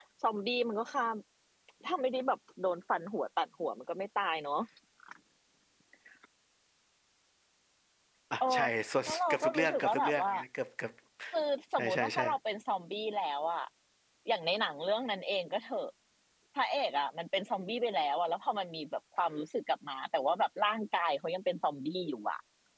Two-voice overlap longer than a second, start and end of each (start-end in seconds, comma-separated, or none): 9.1-10.3